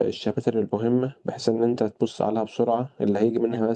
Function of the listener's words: listening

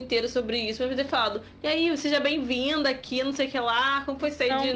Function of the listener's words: listening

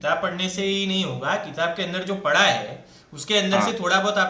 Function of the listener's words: listening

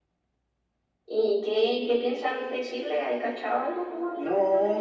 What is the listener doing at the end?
taking over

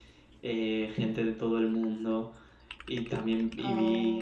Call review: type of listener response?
listening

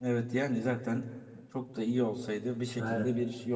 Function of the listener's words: listening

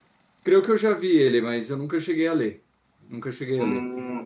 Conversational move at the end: taking over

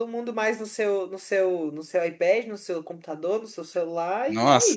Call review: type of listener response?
taking over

